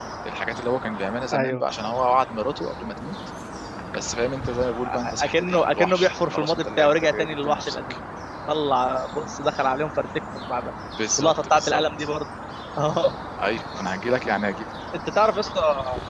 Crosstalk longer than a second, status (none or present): present